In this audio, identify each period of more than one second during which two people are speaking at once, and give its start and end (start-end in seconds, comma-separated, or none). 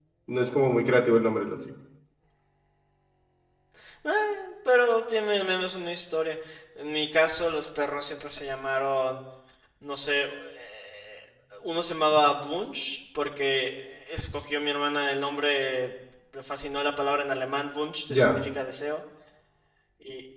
none